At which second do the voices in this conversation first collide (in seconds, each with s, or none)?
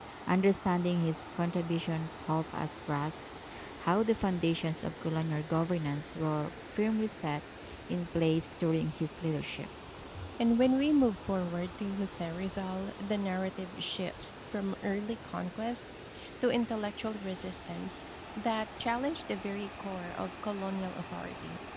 none